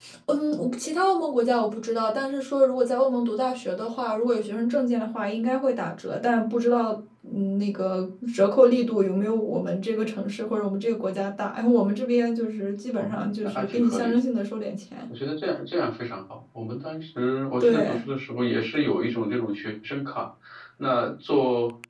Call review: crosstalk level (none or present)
present